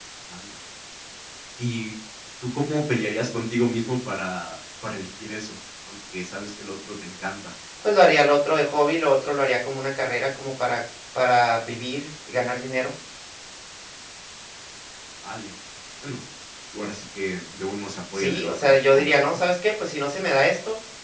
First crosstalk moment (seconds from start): 18.1 s

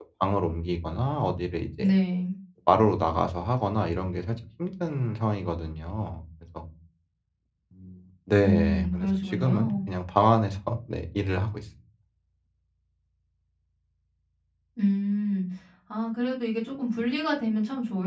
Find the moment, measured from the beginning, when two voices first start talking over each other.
8.4 s

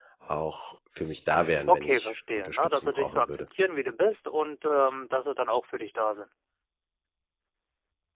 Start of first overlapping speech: 1.7 s

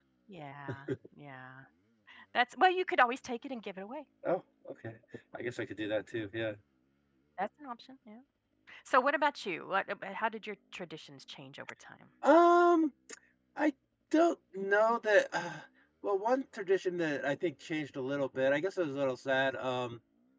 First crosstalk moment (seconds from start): none

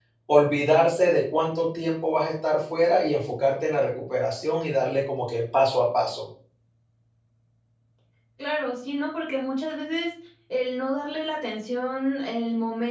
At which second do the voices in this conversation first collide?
none

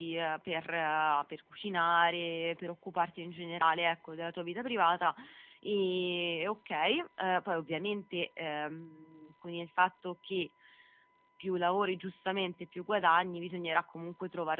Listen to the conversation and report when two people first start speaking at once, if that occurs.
none

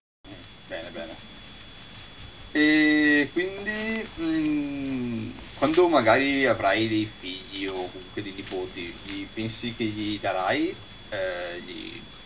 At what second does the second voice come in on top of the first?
none

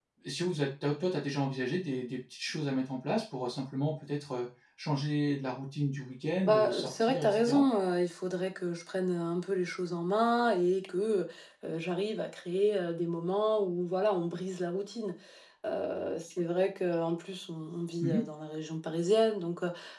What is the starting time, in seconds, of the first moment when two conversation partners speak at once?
6.5 s

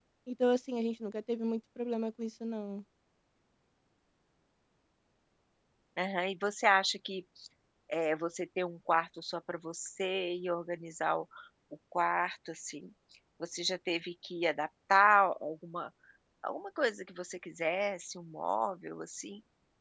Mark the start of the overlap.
none

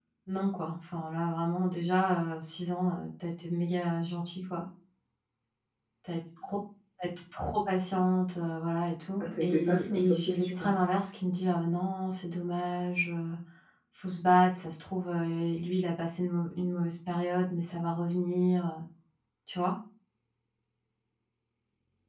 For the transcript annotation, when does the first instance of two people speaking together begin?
9.2 s

